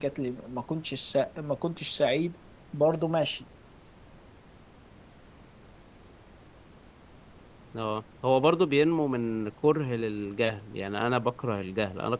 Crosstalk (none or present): none